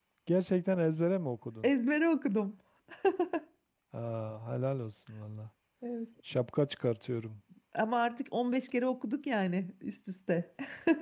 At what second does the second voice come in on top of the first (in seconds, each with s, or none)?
none